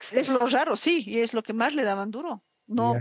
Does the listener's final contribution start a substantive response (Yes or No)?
No